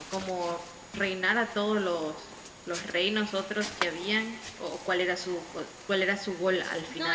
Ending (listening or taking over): taking over